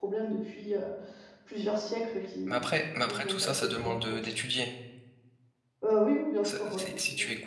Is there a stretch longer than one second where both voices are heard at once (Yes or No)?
Yes